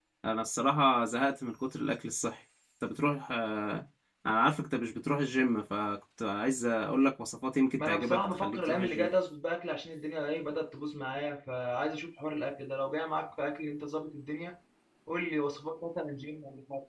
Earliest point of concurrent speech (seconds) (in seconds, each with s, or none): 7.8 s